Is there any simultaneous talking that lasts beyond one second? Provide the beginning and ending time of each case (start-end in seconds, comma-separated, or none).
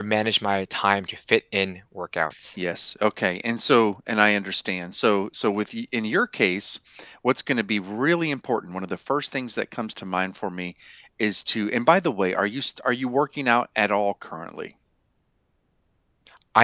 none